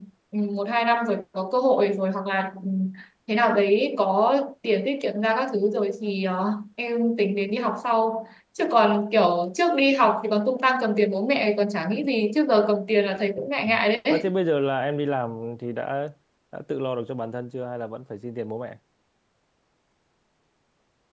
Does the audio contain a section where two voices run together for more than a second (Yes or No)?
No